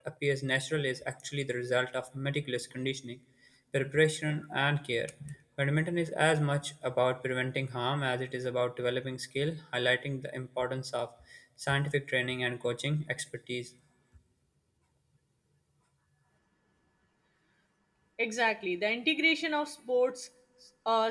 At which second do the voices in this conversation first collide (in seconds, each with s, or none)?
none